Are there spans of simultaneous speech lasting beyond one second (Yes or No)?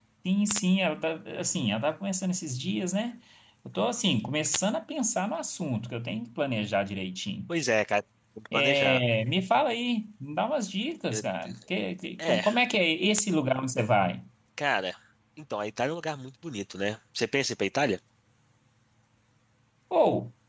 No